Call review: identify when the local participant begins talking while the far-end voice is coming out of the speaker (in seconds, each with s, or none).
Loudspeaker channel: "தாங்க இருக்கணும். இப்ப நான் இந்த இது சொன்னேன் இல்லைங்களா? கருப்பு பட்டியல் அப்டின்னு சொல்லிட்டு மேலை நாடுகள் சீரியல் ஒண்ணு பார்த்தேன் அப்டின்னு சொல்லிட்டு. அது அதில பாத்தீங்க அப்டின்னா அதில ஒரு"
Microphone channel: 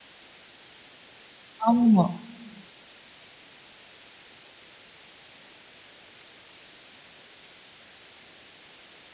1.7 s